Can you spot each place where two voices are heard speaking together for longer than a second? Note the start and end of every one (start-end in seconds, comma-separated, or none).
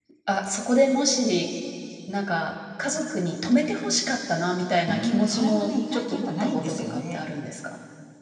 4.9-7.2